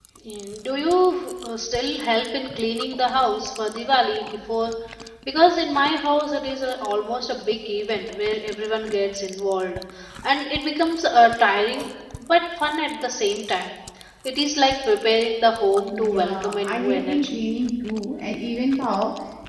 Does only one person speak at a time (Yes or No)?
No